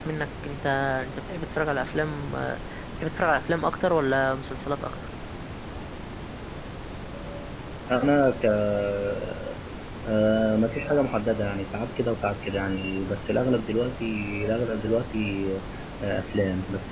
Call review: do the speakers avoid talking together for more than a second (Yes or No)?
Yes